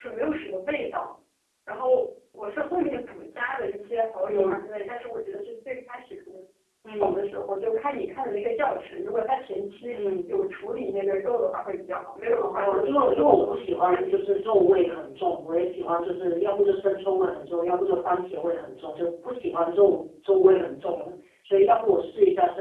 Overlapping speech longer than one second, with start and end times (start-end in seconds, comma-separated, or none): 12.4-14.4